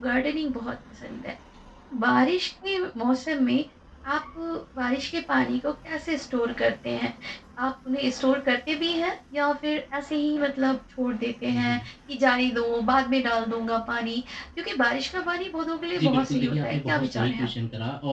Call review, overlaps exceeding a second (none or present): present